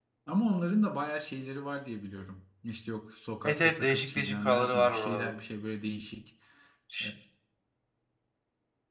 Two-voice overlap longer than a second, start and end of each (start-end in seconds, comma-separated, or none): 3.4-5.3